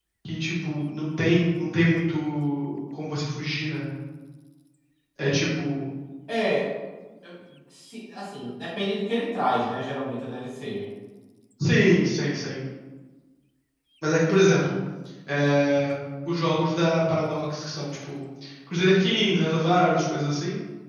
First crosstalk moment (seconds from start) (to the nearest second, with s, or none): none